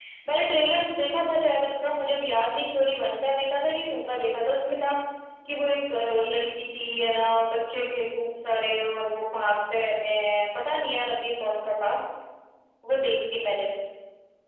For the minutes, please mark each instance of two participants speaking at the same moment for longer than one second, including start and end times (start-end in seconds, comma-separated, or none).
none